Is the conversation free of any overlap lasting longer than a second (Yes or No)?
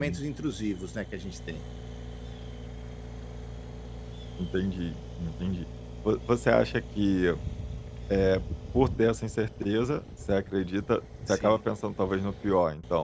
Yes